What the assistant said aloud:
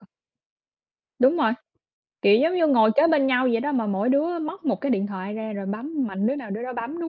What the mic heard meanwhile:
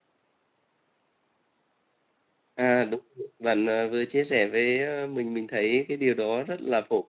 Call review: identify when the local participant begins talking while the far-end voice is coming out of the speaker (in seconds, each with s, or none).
2.5 s